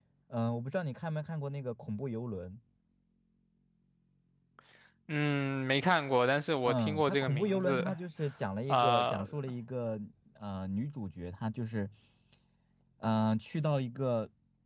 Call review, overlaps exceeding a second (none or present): present